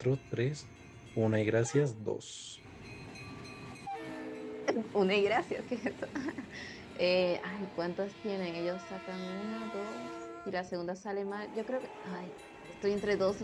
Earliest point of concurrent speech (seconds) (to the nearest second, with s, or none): none